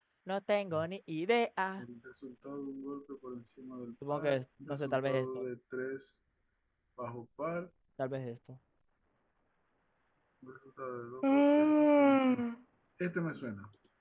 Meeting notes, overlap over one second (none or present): present